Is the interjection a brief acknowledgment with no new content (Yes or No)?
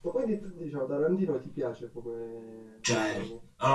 No